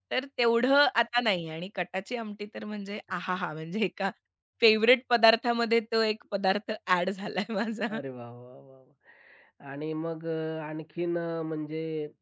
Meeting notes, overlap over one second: none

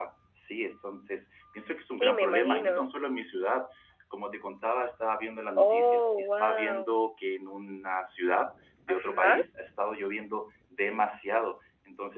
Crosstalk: present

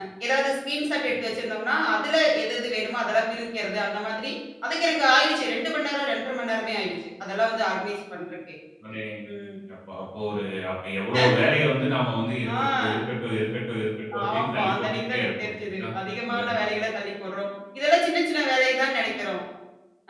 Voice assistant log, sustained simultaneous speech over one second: present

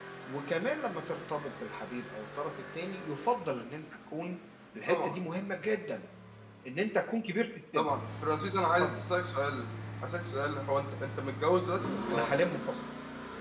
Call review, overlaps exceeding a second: none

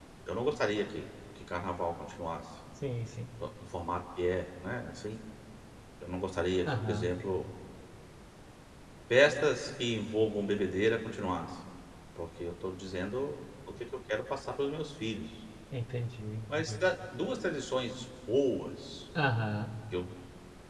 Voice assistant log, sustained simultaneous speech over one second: none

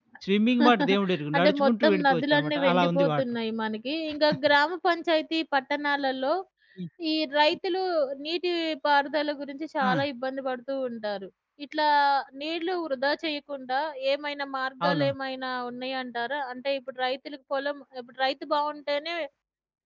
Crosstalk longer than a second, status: present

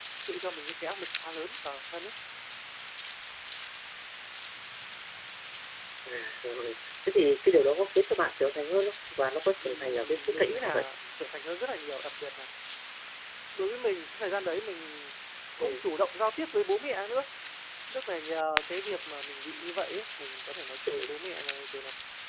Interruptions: present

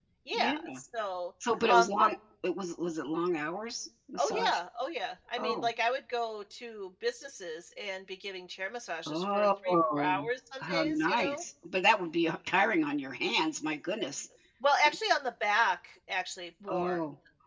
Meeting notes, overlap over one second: present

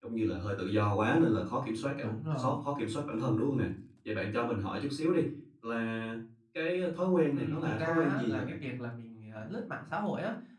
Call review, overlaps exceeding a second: present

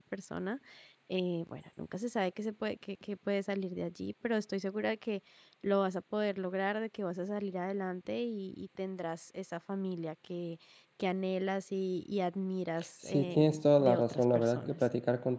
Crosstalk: present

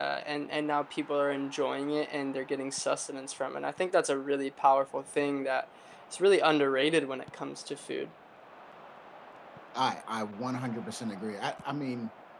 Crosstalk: none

